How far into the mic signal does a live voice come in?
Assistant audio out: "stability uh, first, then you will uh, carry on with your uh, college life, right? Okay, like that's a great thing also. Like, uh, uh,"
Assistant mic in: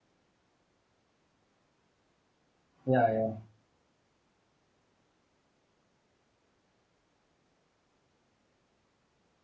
3 s

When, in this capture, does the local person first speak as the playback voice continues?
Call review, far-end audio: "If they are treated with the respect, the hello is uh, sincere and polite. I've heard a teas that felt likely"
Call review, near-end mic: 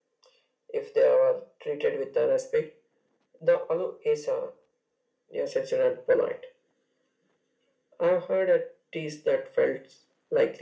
none

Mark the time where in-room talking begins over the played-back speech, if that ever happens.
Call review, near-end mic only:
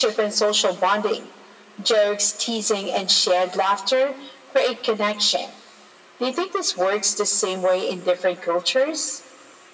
none

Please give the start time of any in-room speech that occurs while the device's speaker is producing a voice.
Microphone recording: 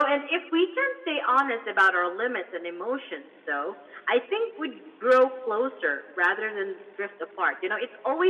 none

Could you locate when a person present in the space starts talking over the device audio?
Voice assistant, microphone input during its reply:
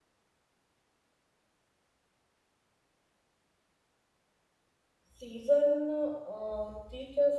5 s

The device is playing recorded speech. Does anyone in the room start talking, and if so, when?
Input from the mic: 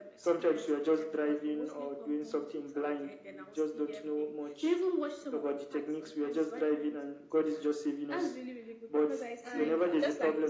9 s

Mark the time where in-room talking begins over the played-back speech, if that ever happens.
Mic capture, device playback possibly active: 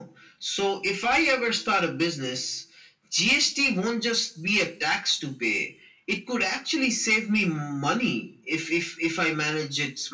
none

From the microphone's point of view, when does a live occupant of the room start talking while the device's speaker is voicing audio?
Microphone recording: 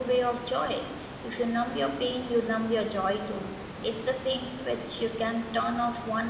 none

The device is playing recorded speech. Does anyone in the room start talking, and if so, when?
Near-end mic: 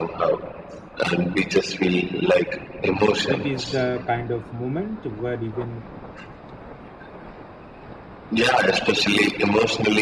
3 s

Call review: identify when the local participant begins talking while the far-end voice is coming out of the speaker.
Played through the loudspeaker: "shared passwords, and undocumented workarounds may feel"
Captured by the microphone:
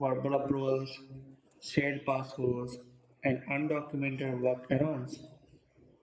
none

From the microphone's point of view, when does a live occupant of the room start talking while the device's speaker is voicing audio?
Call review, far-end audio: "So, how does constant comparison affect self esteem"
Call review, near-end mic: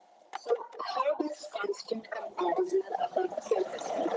none

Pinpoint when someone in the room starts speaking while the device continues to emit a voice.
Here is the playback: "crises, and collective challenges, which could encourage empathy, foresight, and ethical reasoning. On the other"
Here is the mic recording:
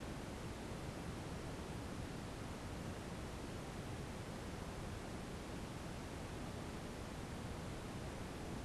none

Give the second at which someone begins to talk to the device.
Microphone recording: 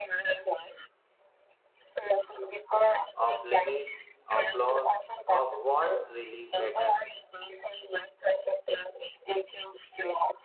3 s

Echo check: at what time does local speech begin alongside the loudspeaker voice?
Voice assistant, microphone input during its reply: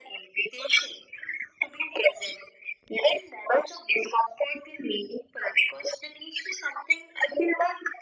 none

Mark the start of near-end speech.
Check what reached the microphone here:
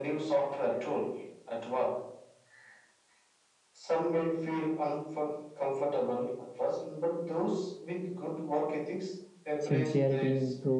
10 s

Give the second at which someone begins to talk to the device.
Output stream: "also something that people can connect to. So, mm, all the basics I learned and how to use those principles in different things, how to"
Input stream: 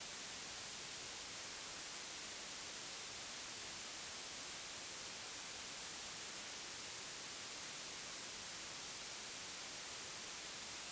none

